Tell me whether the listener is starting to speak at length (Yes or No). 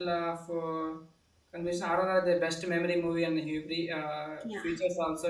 No